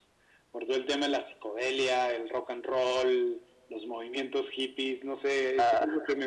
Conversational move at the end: listening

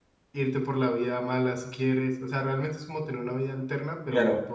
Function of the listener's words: taking over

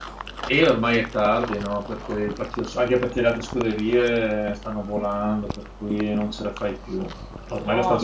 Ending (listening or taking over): listening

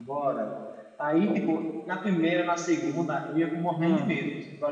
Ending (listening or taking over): listening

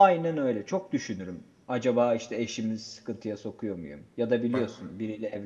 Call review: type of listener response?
listening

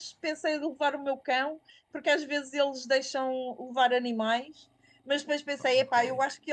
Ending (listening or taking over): listening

